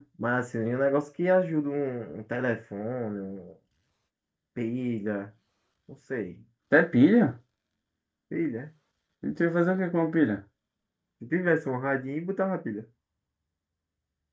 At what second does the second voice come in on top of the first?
none

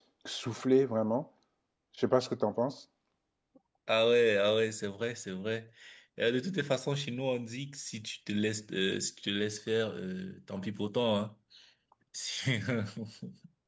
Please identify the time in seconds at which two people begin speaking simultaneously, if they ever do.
none

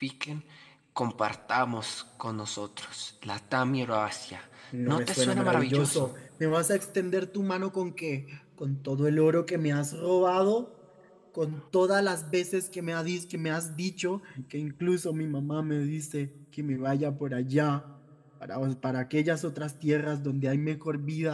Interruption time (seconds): 4.9 s

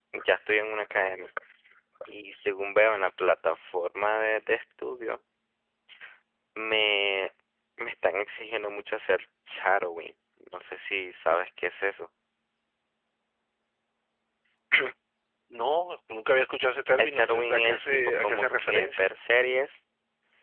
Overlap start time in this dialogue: 17.0 s

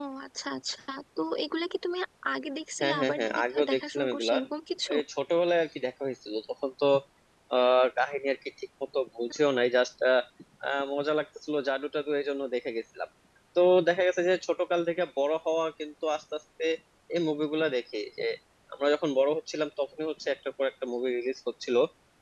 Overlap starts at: 2.8 s

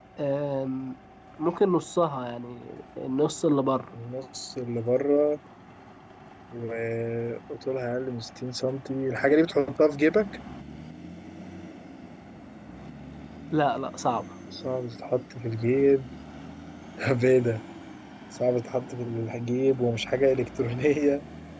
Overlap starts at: none

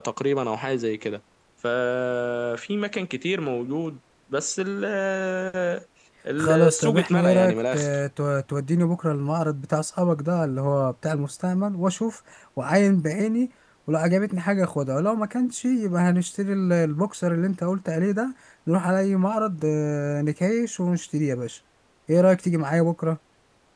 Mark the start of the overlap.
6.4 s

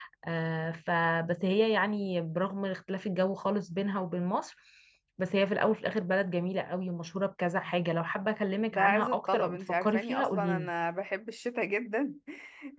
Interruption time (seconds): 8.7 s

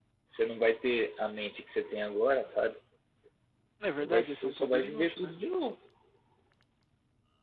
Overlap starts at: 4.0 s

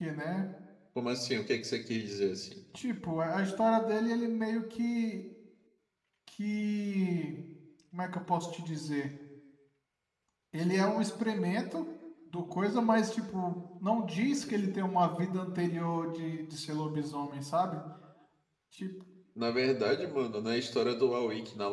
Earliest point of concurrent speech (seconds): none

